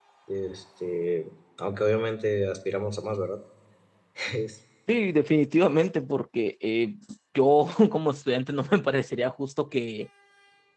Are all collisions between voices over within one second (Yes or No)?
Yes